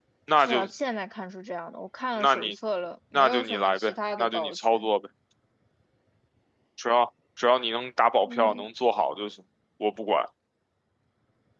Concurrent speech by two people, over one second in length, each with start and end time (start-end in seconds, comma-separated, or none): 3.1-4.9